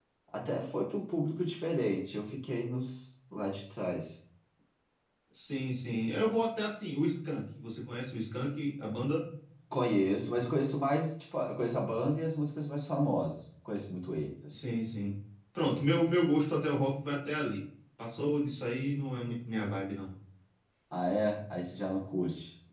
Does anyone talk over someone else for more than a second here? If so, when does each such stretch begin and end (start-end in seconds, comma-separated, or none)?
none